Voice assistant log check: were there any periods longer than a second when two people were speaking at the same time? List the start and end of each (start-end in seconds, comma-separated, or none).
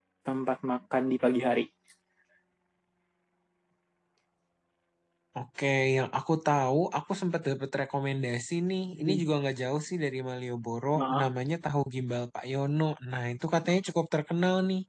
none